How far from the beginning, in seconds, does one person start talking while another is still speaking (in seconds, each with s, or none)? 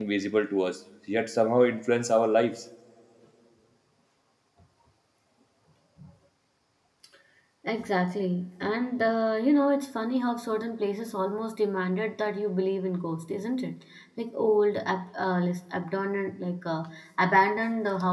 none